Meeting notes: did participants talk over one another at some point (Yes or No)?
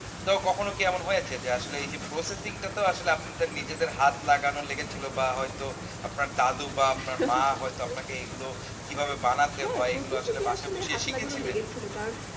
Yes